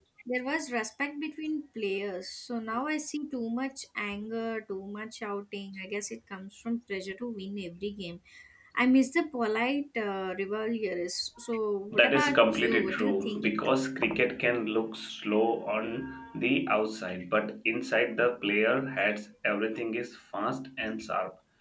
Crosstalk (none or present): present